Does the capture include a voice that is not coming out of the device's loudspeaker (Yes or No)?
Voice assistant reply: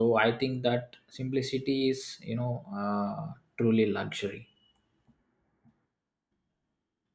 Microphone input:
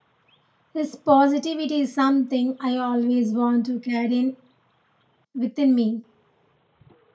Yes